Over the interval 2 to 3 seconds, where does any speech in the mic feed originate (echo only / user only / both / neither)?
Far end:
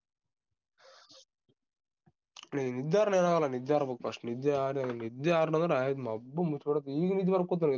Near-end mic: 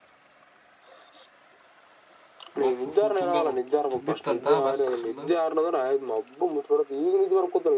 both